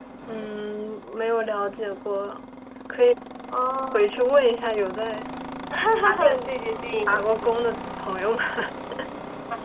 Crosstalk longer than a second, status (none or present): none